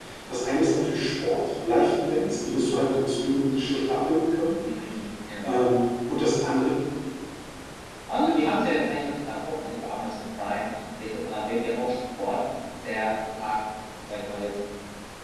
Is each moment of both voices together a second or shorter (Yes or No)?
Yes